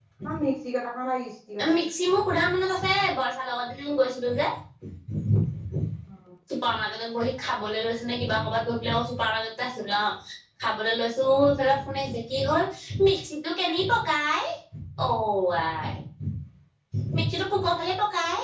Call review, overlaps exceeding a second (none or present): none